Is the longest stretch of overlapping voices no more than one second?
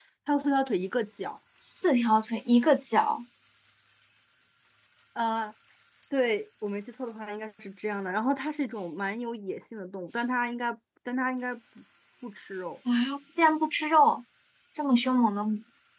Yes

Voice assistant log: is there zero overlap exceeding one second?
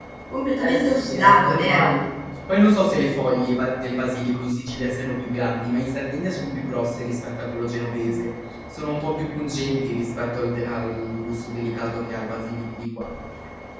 No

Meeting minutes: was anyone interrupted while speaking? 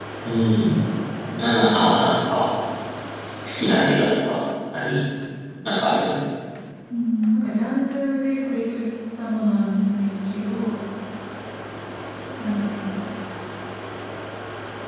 No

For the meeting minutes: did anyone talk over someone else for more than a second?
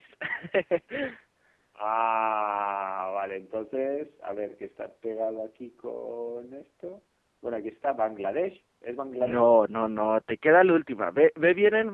No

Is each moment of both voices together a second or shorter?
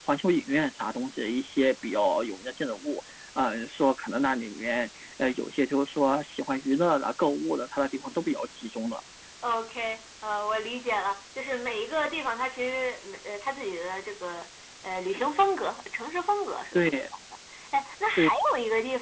Yes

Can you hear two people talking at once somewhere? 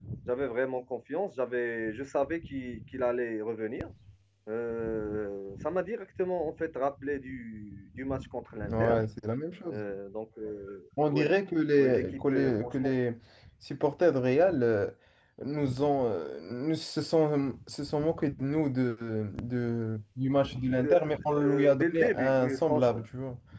Yes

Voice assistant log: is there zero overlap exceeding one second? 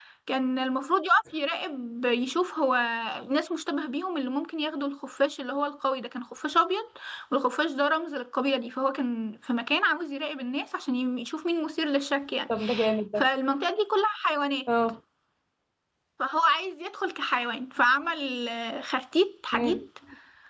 Yes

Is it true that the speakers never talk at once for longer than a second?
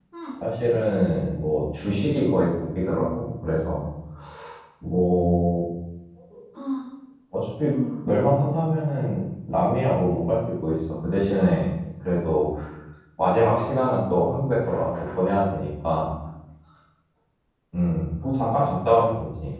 Yes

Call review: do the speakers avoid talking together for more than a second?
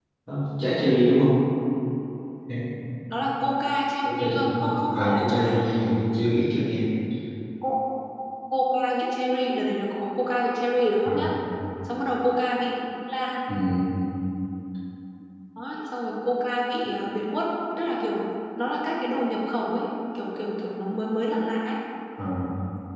No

